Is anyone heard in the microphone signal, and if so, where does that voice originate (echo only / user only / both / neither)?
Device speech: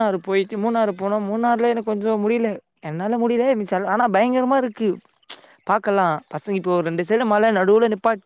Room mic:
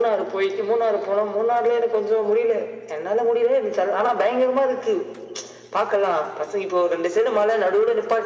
echo only